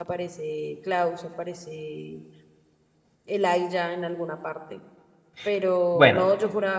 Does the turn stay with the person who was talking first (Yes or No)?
Yes